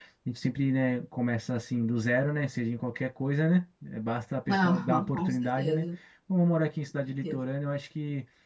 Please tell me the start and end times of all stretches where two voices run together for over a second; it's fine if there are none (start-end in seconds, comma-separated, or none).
4.5-5.8